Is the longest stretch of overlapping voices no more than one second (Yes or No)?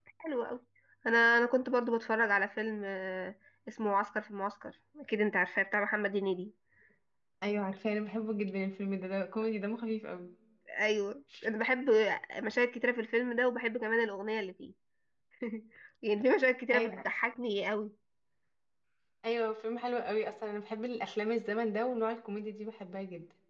Yes